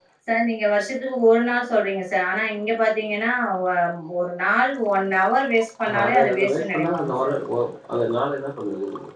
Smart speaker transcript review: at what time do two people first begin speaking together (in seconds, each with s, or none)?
5.8 s